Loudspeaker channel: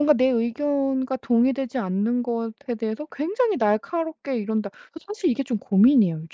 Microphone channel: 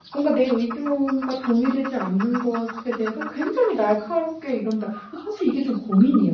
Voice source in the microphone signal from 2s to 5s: echo only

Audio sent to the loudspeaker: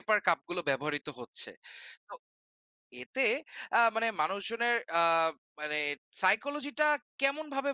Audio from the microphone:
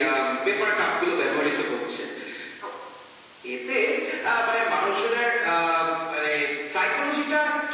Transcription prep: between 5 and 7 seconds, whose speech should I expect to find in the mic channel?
echo only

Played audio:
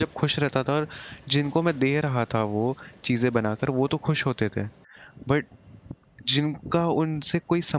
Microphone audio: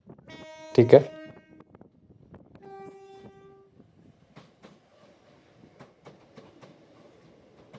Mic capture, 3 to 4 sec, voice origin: neither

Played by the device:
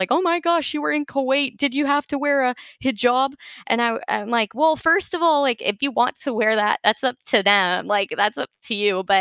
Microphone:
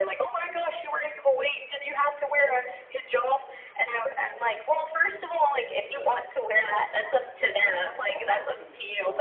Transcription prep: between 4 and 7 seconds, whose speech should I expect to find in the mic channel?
both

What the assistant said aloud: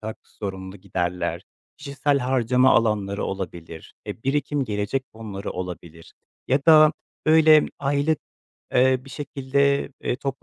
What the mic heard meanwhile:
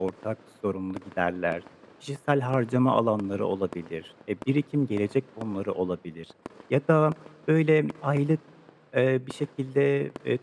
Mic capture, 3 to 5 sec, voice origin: echo only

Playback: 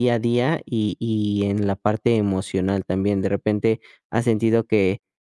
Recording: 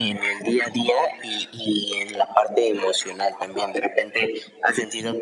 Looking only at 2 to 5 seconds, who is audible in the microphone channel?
echo only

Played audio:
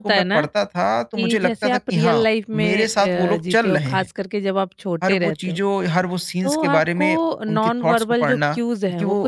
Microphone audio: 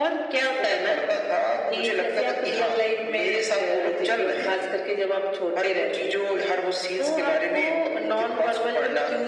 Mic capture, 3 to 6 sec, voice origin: echo only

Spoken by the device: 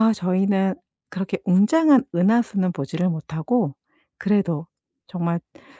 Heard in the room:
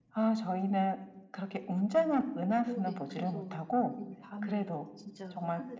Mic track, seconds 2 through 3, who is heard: both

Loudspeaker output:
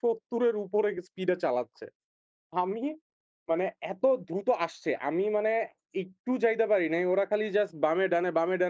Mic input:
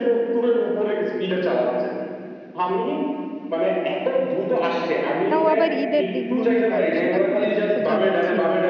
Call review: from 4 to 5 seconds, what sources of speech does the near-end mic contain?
echo only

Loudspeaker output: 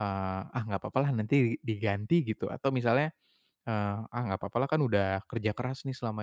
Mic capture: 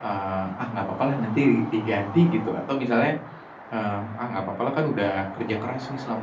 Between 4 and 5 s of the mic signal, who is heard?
echo only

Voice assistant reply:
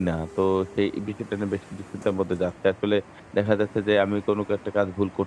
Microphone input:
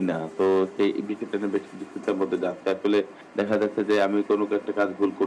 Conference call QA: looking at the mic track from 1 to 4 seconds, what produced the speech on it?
echo only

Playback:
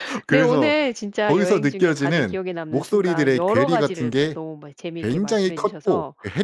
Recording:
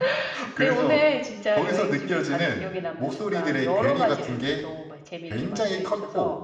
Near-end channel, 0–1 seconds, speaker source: echo only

